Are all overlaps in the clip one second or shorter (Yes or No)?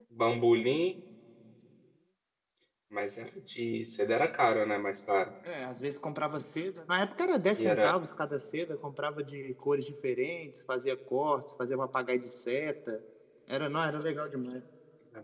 Yes